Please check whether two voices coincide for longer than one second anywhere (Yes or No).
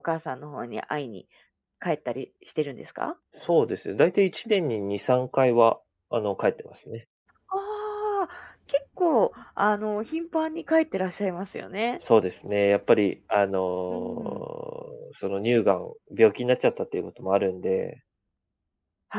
No